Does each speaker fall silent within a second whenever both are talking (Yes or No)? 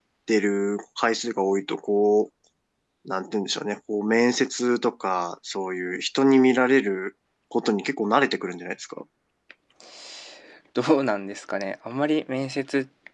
Yes